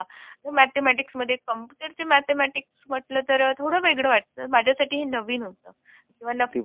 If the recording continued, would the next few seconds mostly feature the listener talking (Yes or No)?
No